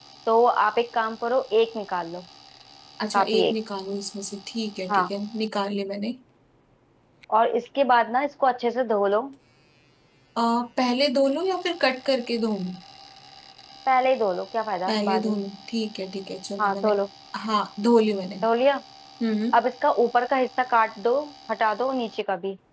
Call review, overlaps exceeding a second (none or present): none